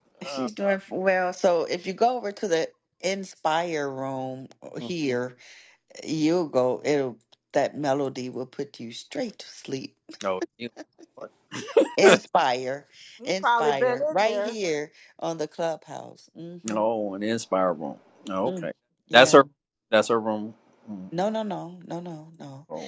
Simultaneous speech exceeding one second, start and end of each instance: 13.2-14.5

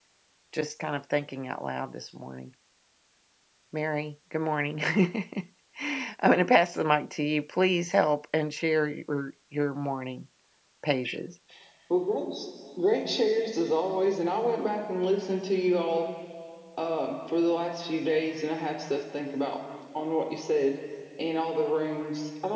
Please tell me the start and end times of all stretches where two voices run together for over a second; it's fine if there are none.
none

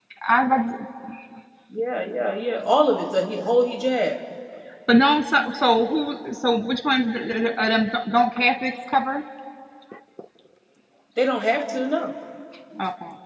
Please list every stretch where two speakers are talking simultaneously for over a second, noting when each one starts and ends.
none

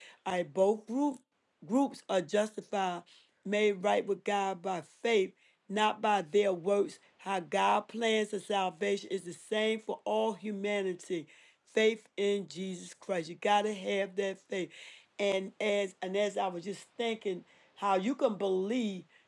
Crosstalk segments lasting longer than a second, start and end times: none

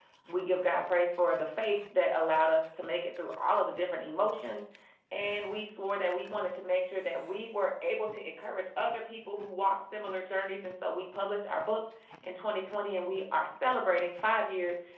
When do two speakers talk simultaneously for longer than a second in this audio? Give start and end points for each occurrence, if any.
none

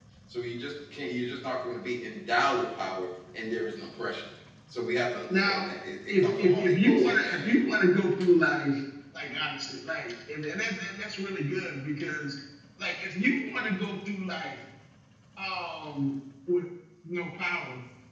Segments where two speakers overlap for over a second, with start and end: 6.1-7.5

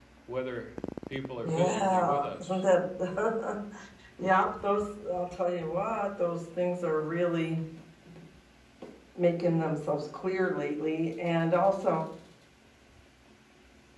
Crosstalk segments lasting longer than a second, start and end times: 1.4-2.6

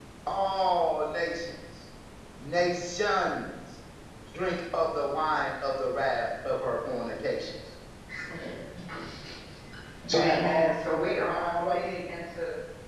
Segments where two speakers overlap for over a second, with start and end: 10.1-11.9

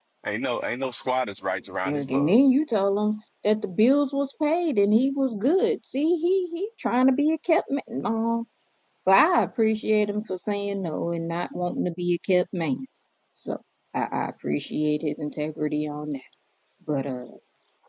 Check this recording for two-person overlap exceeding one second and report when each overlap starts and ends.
none

